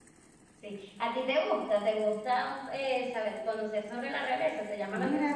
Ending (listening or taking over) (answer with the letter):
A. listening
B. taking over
B